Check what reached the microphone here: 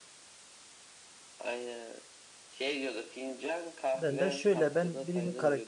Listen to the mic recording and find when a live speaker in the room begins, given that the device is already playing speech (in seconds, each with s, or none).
3.9 s